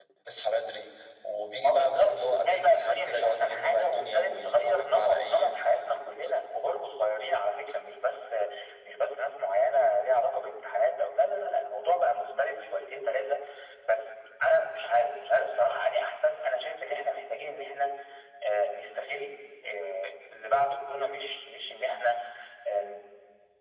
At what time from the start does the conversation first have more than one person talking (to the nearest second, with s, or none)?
2 s